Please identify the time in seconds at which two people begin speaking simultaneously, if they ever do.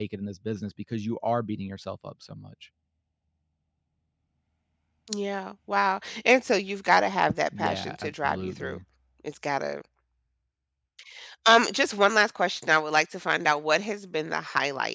8 s

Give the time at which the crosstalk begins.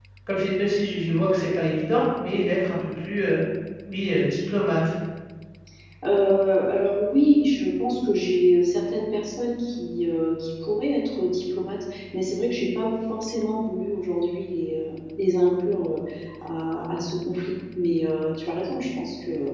none

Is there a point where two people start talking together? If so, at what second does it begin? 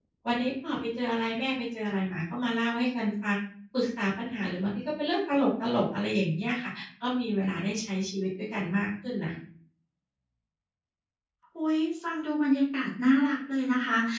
none

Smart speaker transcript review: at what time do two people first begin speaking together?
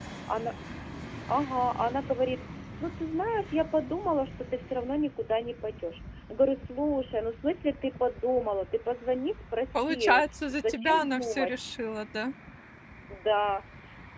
10 s

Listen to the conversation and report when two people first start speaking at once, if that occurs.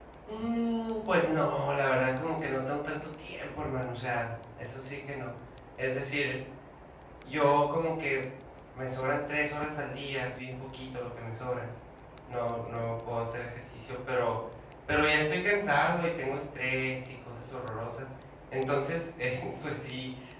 none

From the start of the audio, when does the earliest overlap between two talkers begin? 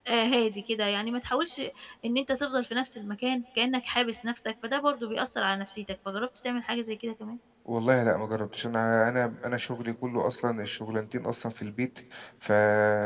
none

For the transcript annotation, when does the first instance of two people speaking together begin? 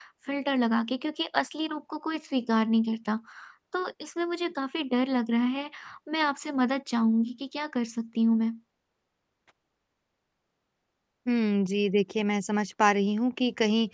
none

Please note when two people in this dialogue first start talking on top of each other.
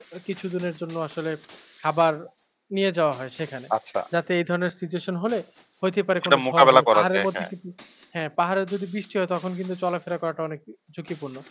6 s

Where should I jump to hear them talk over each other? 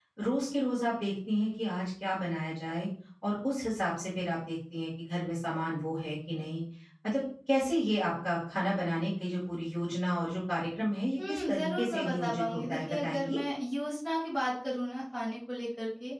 11 s

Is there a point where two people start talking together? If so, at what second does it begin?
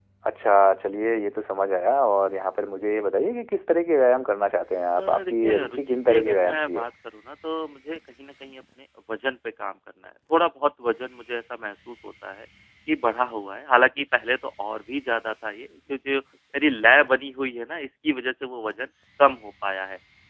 5 s

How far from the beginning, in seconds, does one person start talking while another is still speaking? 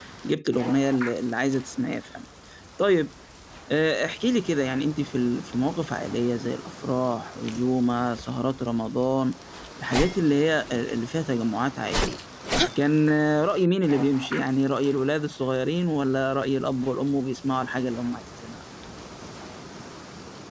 none

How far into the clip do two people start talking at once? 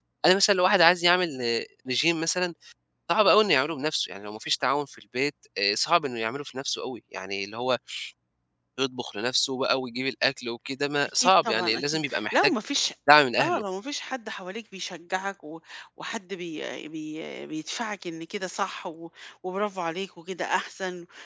11 s

